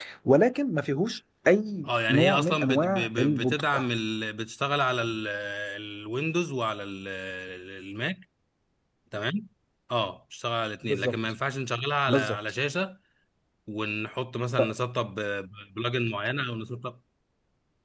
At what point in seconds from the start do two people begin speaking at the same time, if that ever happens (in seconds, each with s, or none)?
1.9 s